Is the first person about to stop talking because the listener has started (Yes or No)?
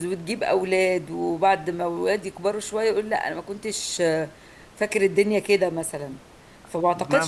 No